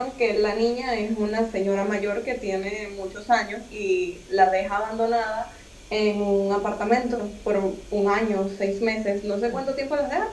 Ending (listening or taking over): listening